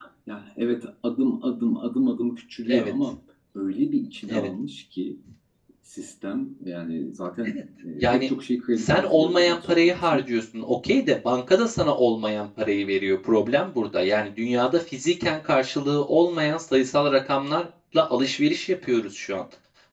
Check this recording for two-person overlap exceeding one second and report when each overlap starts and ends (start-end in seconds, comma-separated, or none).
8.8-10.2